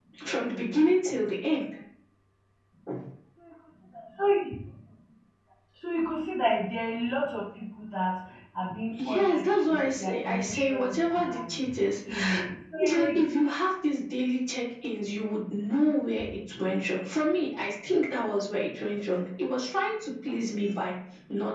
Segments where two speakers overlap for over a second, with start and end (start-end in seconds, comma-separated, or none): 9.0-11.6